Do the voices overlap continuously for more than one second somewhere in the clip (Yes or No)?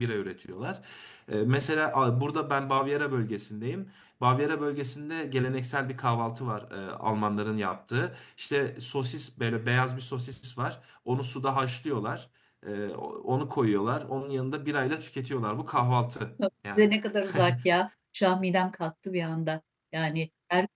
No